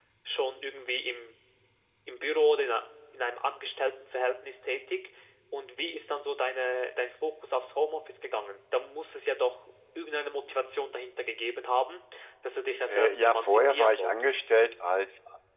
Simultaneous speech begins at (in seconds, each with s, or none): 12.9 s